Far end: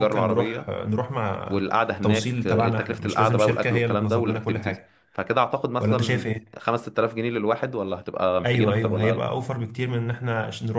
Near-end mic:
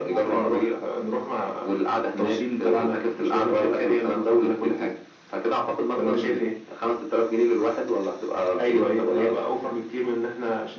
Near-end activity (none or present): none